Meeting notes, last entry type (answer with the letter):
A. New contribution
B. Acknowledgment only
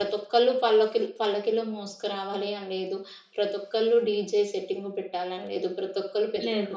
B